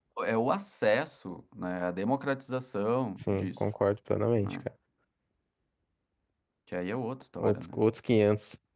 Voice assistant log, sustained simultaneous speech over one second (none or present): none